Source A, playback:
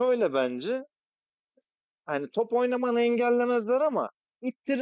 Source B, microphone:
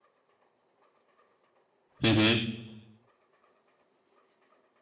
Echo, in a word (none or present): none